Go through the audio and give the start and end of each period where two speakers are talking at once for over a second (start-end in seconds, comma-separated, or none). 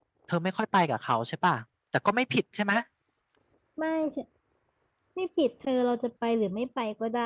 none